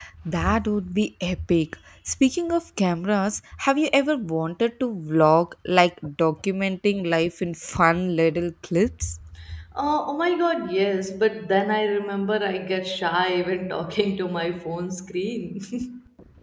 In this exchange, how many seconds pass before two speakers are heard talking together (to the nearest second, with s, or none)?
none